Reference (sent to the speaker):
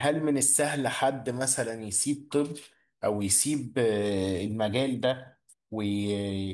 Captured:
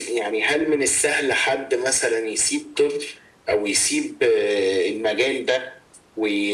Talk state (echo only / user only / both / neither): echo only